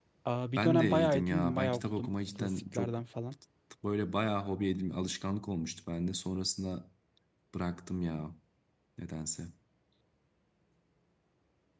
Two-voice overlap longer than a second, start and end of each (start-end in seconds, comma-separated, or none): 0.6-3.0